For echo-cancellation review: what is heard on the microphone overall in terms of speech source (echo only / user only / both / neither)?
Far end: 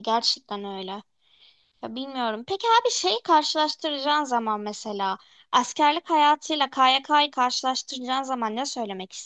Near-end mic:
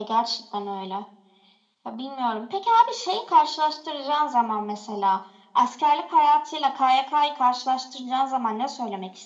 echo only